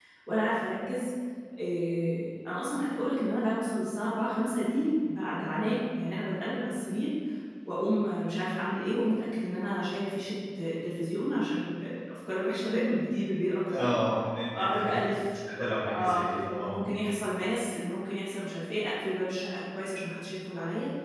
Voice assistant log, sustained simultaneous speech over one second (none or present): present